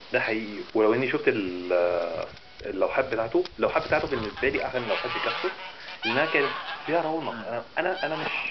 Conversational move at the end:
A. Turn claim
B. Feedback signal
B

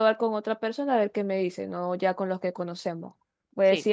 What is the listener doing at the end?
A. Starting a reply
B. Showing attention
B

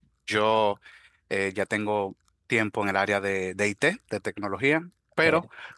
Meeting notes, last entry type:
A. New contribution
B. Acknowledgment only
B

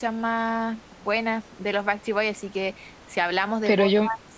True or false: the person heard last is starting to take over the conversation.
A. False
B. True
A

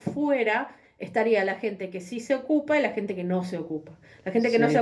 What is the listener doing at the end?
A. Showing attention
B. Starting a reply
A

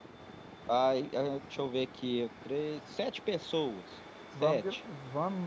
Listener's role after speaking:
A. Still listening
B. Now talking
B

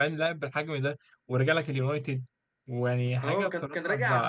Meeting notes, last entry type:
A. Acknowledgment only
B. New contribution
B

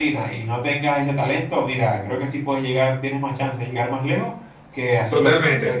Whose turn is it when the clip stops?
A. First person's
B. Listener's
B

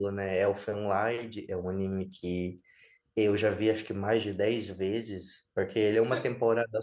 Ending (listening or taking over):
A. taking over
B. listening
B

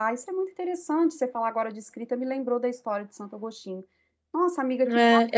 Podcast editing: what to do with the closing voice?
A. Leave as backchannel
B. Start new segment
B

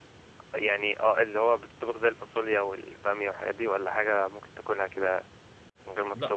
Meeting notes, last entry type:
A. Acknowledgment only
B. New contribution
B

